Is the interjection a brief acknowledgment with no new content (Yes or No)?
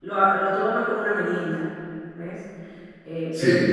Yes